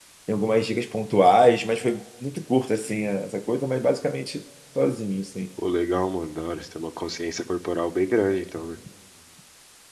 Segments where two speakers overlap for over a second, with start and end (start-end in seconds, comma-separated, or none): none